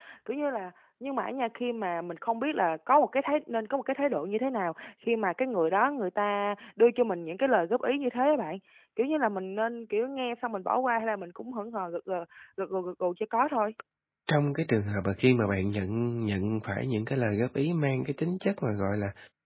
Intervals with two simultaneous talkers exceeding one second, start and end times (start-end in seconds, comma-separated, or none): none